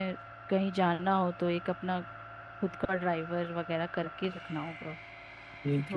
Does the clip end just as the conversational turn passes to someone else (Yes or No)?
Yes